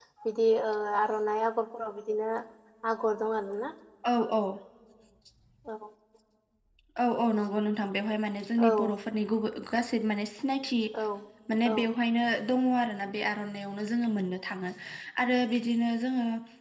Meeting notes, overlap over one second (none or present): none